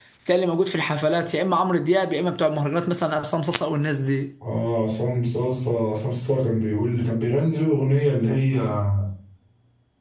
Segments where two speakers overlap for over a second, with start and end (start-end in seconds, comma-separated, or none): none